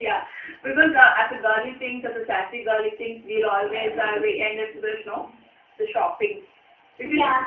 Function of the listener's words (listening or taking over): listening